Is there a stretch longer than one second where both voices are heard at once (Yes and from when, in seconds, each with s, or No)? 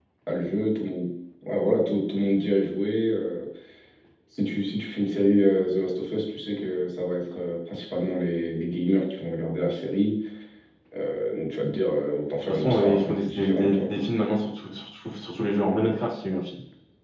Yes, from 12.4 s